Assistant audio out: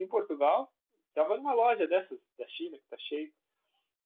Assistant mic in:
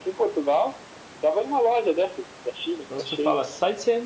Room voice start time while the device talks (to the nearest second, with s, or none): 3 s